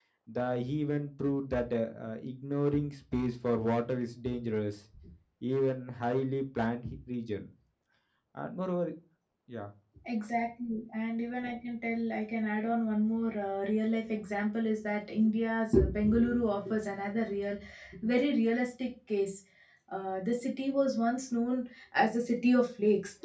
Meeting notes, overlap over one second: none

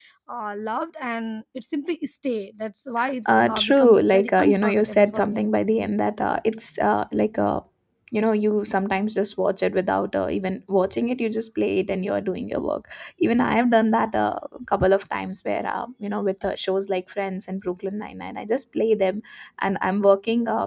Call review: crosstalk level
present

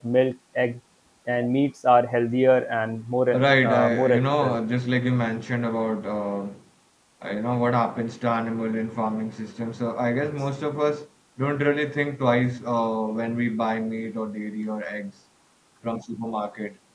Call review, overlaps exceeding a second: present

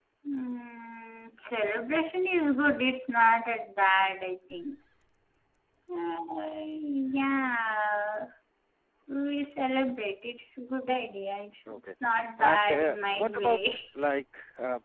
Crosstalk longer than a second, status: present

